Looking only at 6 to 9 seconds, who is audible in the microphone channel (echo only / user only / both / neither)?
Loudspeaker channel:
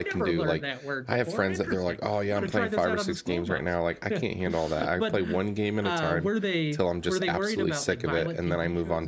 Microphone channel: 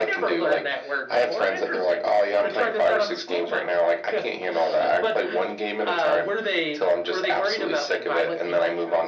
echo only